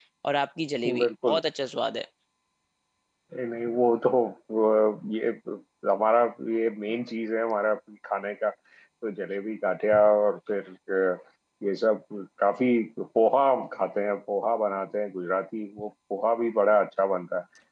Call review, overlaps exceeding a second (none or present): none